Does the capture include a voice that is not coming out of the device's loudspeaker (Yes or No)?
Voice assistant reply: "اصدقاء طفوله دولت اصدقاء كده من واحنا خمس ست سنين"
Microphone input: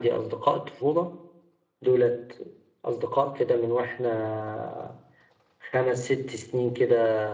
No